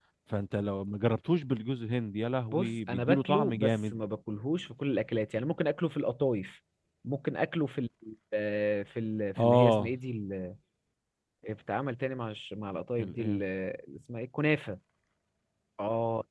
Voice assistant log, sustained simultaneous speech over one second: present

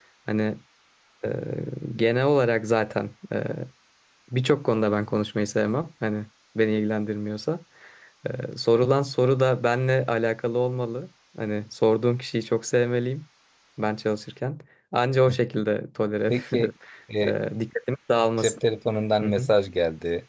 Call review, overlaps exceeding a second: none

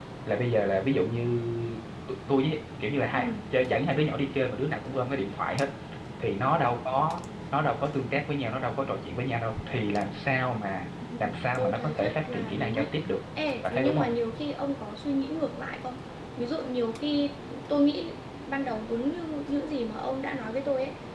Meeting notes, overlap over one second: present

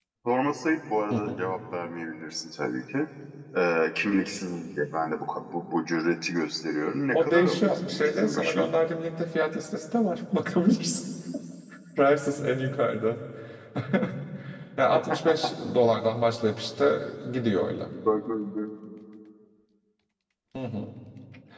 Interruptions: present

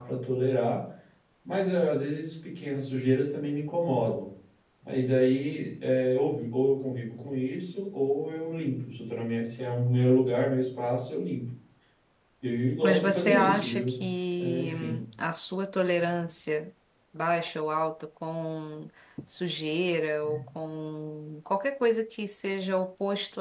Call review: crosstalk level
present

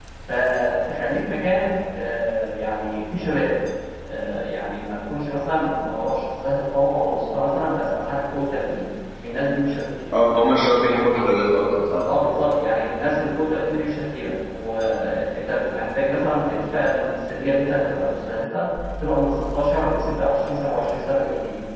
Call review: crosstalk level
none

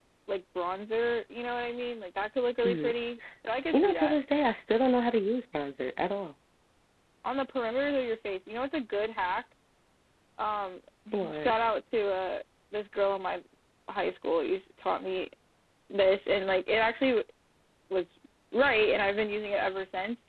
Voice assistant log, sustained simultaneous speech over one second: none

